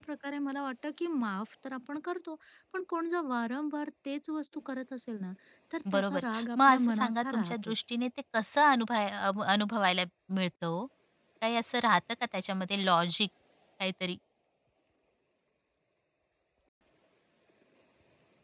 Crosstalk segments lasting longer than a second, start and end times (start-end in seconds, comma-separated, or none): 5.9-7.7